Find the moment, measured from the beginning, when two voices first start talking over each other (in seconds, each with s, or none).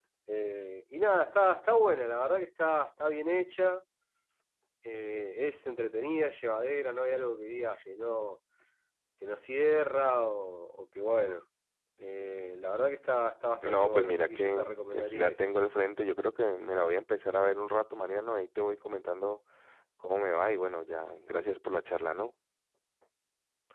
13.6 s